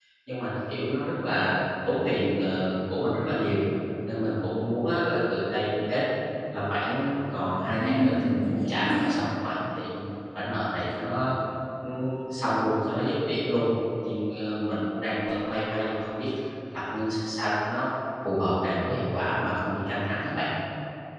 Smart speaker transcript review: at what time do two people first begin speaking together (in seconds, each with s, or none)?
7.6 s